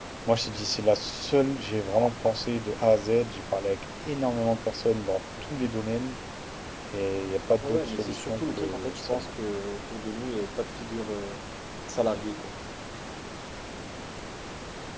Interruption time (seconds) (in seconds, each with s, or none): 7.6 s